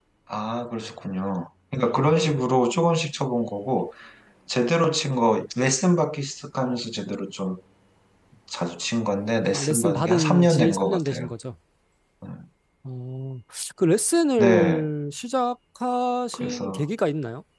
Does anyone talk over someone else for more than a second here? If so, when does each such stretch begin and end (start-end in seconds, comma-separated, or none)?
9.5-11.3